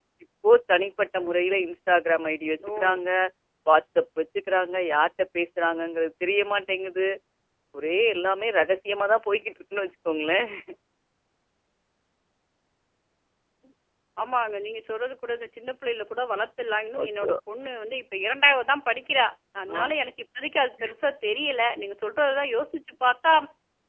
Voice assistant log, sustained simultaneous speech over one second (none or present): none